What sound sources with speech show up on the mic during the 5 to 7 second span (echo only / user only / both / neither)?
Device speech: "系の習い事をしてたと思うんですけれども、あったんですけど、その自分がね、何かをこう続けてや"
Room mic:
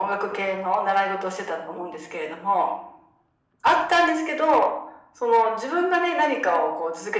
echo only